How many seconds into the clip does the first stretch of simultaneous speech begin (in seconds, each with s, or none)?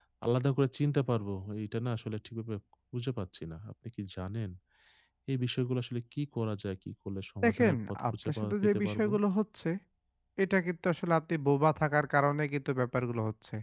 7.4 s